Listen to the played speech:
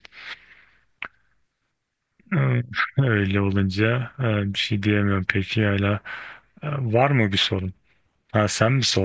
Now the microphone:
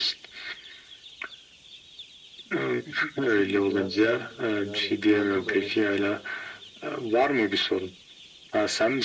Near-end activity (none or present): present